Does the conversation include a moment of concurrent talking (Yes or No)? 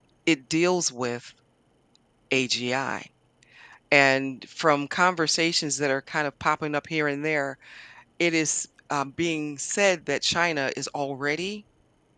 No